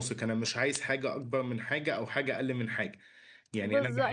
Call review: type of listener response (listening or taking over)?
taking over